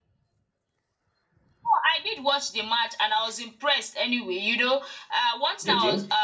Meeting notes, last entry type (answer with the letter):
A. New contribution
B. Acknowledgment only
B